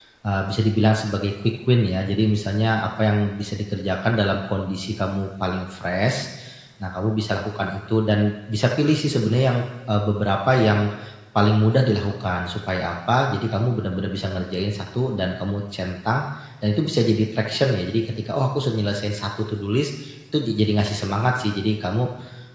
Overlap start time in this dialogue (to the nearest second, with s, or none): none